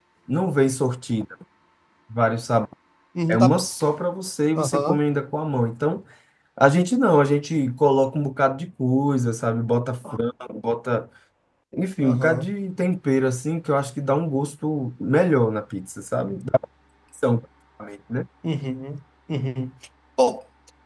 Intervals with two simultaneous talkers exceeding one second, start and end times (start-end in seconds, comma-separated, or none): none